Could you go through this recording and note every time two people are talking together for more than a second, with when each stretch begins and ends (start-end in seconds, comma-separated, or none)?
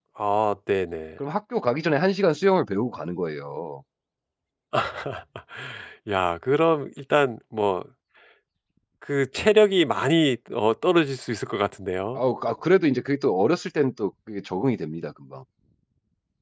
none